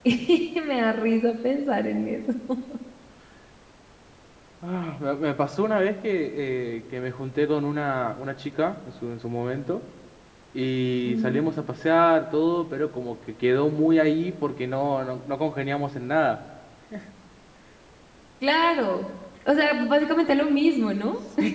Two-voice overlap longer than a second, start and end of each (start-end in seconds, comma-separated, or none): none